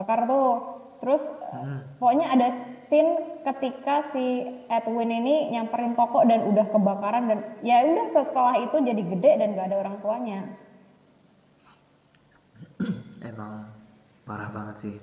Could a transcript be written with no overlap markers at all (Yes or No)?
Yes